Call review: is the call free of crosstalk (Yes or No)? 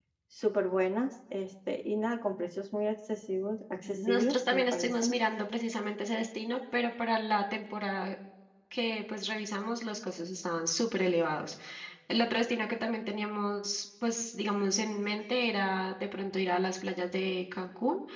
No